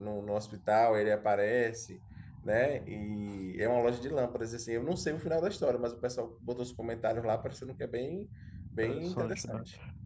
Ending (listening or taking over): taking over